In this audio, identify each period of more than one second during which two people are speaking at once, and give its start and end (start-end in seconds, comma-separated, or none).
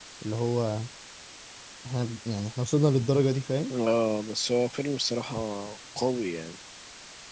none